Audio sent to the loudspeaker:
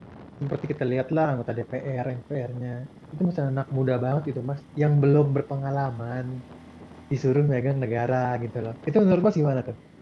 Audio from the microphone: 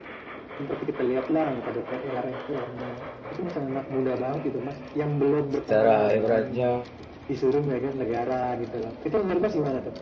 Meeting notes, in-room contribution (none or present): present